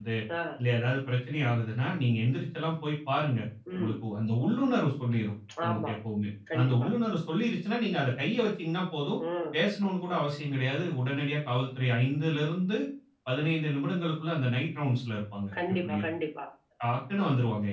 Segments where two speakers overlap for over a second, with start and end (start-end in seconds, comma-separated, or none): none